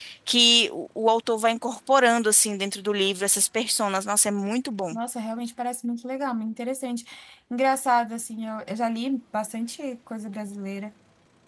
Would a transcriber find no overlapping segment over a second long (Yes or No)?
Yes